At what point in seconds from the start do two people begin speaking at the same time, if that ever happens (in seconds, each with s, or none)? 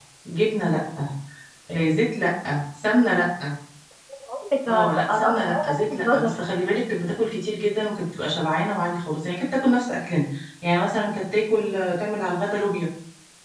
4.7 s